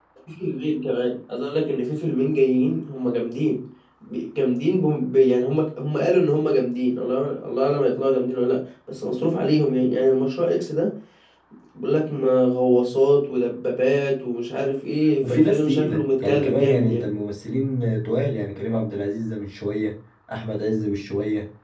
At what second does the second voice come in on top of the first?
15.2 s

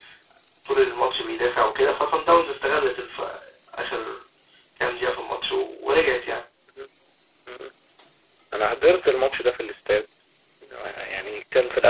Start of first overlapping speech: none

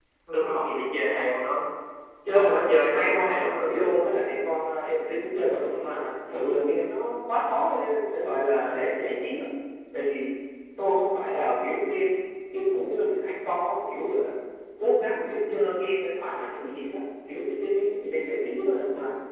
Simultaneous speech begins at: 2.4 s

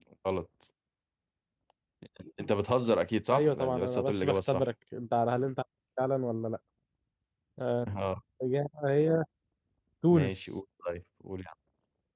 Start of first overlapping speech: 3.3 s

